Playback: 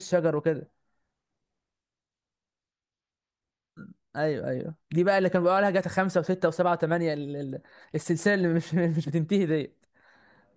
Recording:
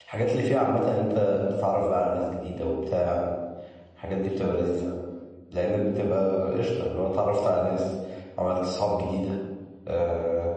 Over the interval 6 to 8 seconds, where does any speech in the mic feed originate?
user only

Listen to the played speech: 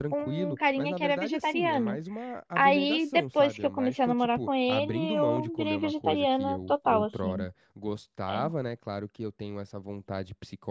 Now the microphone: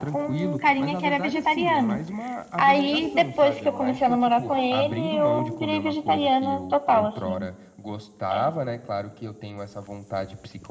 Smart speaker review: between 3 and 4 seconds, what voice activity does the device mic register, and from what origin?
both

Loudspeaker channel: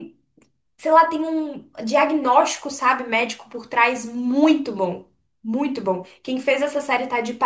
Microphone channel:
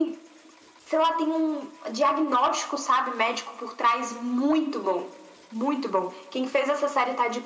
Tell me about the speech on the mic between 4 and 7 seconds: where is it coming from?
echo only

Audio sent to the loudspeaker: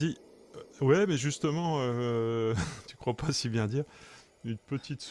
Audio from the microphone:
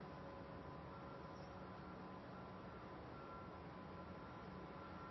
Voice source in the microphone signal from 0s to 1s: neither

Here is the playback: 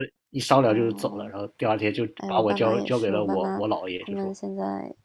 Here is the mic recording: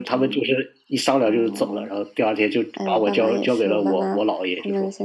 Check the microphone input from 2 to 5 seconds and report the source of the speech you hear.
echo only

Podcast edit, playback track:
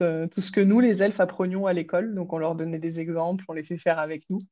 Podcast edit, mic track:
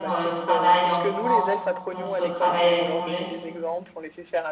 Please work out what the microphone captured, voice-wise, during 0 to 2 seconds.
both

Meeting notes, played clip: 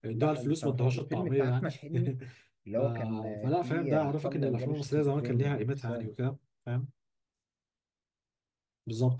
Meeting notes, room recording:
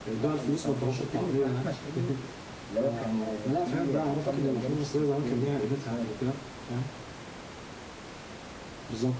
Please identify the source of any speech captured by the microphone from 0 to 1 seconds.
echo only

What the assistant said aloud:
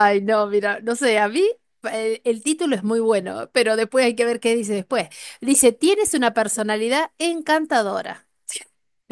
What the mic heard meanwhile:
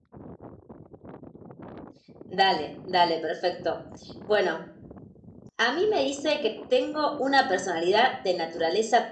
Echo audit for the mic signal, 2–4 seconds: user only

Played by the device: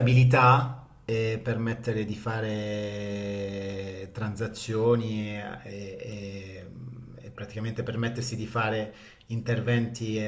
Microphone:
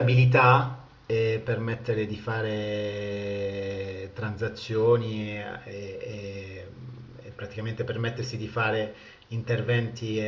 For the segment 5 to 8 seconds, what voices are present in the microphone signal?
echo only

